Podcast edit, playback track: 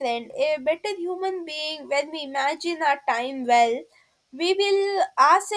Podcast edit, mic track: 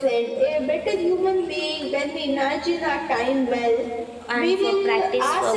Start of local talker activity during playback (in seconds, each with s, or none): 4.3 s